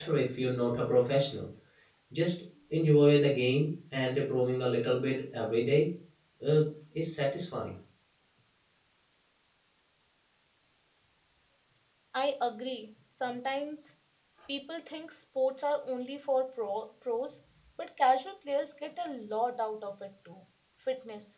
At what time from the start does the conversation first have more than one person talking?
none

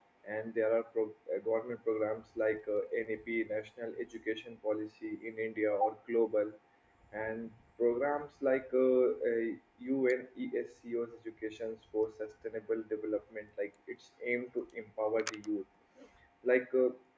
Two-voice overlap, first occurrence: none

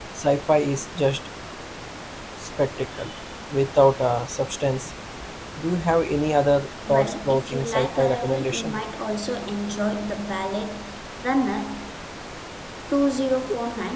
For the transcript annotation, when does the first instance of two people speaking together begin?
6.9 s

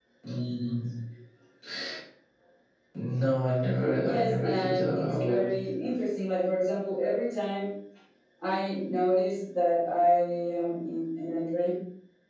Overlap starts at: 4.0 s

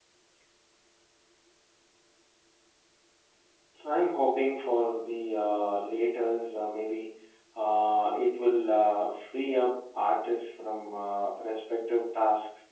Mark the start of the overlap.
none

